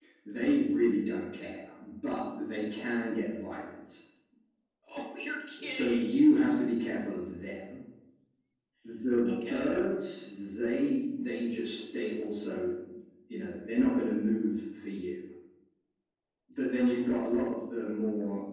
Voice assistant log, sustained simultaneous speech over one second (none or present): none